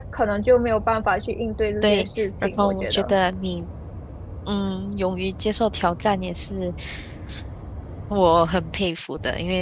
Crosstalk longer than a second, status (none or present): present